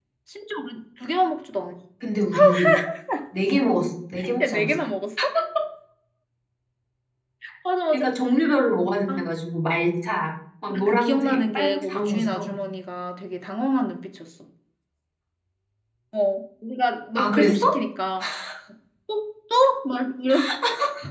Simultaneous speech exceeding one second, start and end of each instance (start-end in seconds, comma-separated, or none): 10.7-12.5